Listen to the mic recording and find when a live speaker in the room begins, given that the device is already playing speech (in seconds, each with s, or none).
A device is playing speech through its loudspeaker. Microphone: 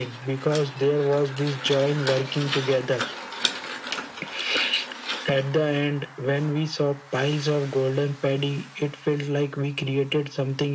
none